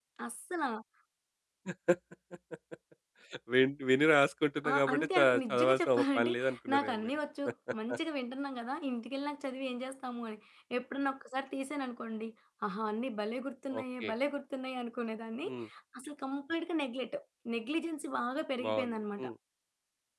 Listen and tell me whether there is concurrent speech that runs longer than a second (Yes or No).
Yes